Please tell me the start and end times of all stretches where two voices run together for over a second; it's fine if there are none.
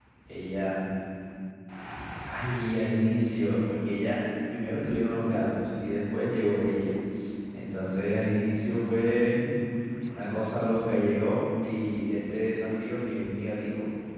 none

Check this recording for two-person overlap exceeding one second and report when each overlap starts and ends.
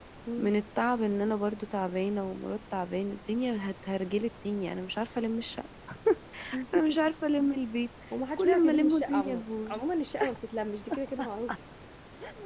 8.4-9.9

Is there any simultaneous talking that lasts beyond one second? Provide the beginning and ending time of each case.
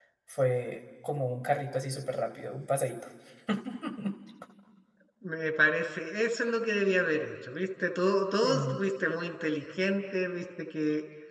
none

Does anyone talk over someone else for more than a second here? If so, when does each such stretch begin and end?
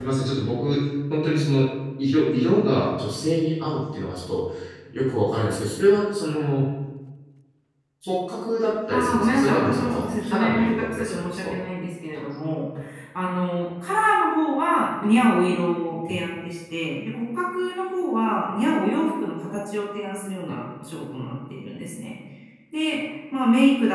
8.9-11.6

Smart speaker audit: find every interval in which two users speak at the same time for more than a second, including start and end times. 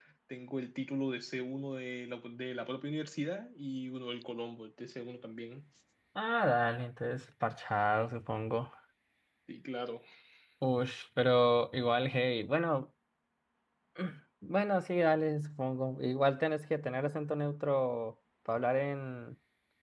none

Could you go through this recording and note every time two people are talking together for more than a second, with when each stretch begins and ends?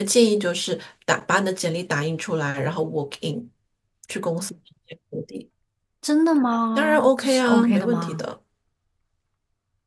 6.8-8.2

